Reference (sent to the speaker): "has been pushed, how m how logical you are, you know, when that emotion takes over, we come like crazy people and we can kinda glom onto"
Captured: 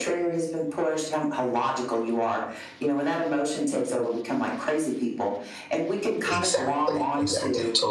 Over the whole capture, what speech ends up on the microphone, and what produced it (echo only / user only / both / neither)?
both